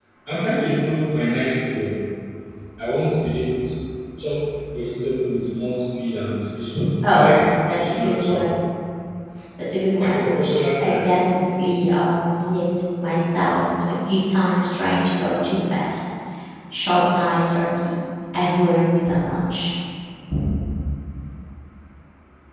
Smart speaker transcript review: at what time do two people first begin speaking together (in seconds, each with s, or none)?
7.1 s